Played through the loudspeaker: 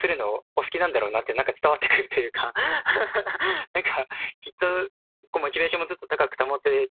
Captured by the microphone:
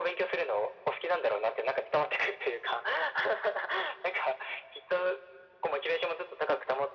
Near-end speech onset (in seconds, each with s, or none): none